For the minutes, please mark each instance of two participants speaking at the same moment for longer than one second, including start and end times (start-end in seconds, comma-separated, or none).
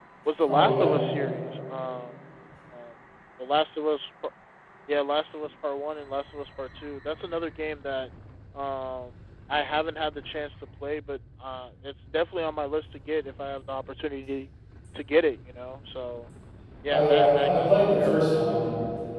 16.9-18.6